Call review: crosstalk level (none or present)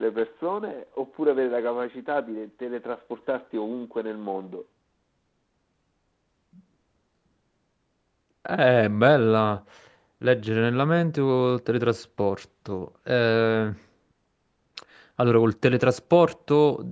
none